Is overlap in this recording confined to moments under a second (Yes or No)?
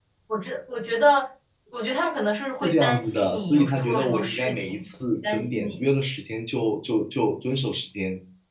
No